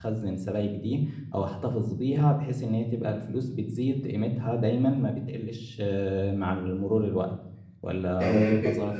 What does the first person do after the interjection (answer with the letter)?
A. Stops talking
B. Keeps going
A